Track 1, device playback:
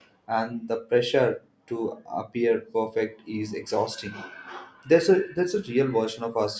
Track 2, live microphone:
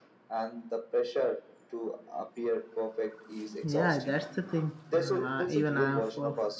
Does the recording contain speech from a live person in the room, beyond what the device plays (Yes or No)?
Yes